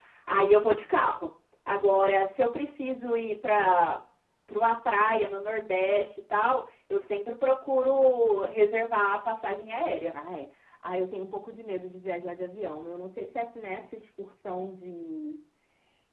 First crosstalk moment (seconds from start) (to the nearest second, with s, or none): none